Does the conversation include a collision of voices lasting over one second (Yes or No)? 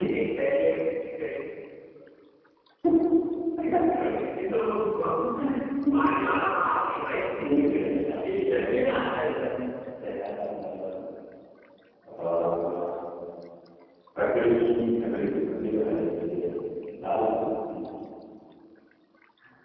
Yes